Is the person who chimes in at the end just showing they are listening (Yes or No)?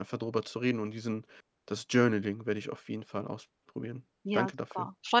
No